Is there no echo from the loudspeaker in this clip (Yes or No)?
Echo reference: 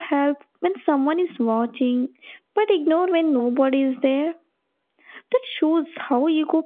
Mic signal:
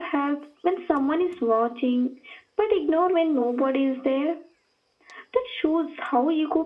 No